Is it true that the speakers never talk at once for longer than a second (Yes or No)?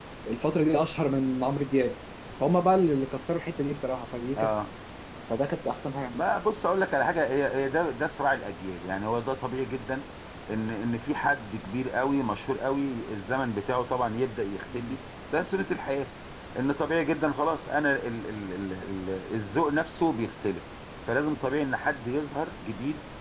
Yes